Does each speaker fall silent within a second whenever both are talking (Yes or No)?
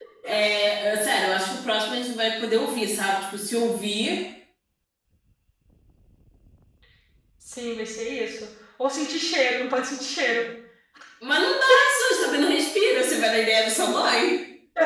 Yes